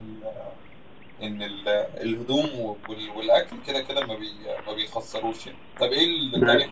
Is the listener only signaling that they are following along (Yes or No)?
Yes